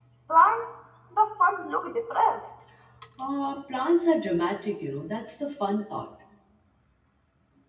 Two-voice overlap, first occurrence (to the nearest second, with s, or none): none